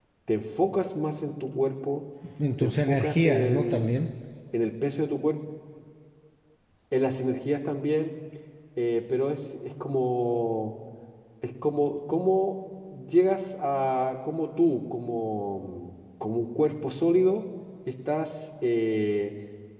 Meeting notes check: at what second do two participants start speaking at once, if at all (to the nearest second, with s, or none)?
3 s